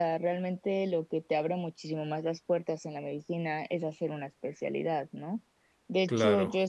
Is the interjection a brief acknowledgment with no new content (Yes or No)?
Yes